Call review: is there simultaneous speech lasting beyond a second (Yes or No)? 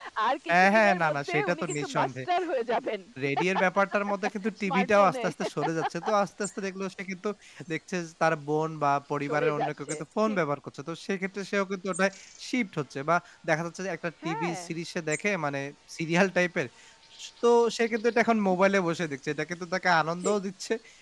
Yes